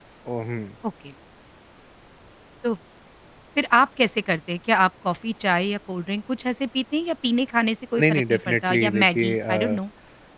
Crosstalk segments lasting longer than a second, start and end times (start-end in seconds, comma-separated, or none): 8.0-9.8